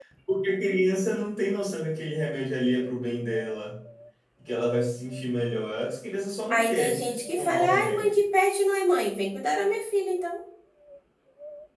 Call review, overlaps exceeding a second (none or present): present